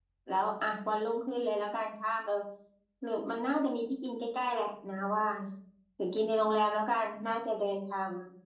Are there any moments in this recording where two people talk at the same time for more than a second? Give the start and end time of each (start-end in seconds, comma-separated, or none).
none